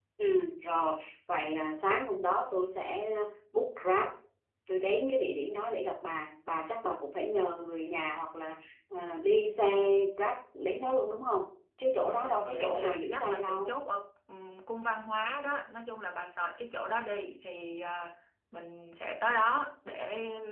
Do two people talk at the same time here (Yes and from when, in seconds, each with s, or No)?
Yes, from 12.0 s